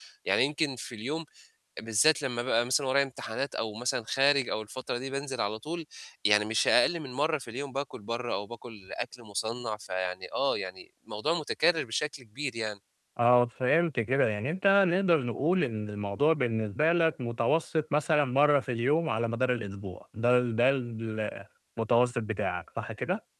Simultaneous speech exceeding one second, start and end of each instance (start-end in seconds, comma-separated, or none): none